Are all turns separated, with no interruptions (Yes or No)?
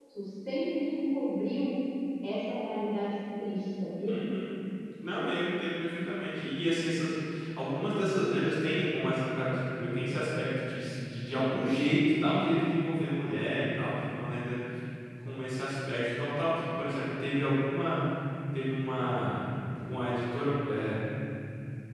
Yes